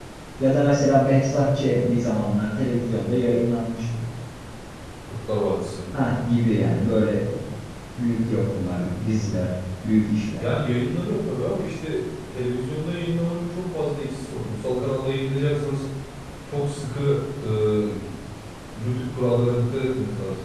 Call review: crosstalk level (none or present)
none